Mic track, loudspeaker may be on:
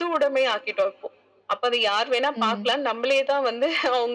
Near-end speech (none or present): present